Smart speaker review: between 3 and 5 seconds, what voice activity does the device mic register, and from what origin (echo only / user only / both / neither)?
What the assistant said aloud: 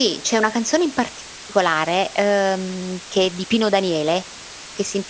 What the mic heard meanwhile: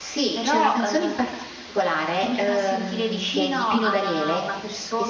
both